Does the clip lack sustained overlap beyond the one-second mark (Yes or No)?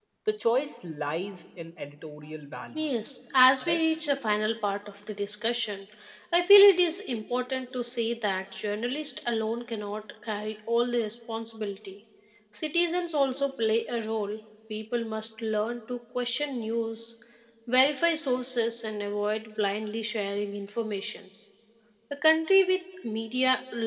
Yes